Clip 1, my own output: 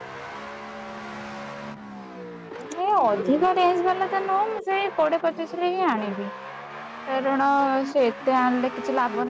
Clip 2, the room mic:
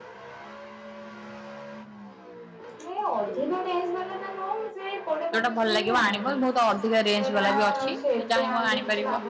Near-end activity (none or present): present